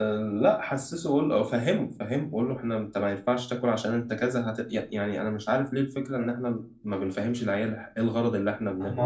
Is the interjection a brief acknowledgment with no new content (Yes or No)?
No